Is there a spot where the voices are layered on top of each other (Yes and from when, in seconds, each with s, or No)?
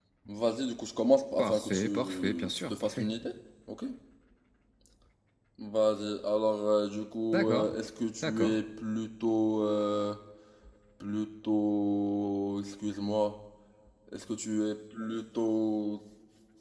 Yes, from 1.4 s